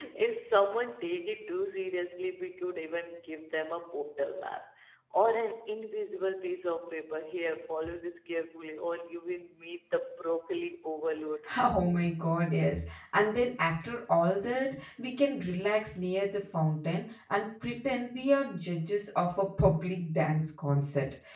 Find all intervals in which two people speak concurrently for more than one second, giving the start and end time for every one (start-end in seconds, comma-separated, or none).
none